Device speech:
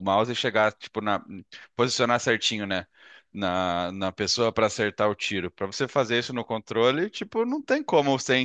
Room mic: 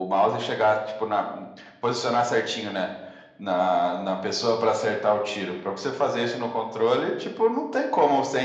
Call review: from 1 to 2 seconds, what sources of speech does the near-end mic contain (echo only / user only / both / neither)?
echo only